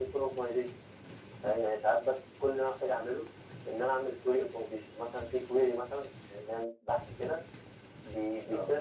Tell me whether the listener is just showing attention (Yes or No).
Yes